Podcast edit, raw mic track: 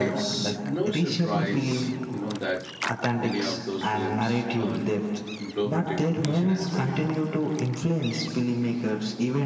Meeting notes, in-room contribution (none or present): present